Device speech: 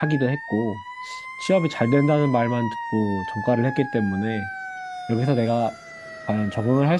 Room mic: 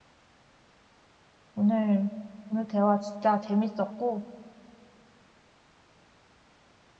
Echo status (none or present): none